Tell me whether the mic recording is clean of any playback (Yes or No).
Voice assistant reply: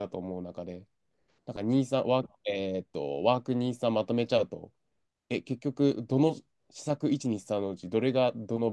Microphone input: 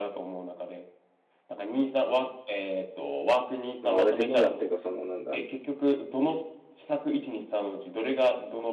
No